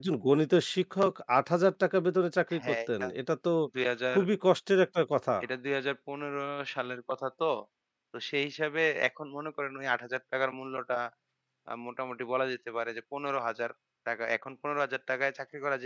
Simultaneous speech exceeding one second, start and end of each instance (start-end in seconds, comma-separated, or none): none